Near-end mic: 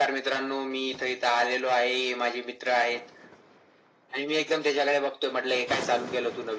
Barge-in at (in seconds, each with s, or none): none